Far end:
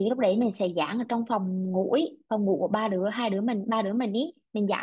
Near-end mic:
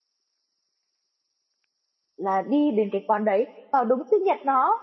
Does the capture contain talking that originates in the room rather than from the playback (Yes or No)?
Yes